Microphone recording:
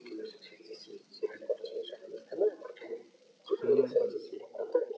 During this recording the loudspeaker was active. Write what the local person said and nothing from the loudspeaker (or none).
Mm.